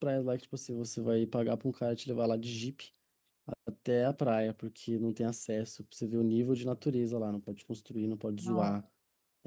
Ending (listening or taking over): listening